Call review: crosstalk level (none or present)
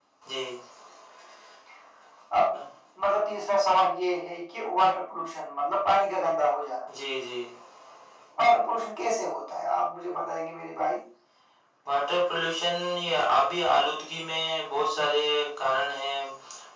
none